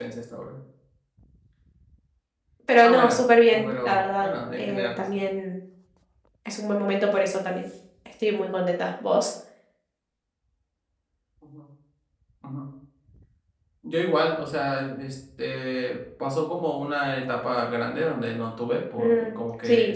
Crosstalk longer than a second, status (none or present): present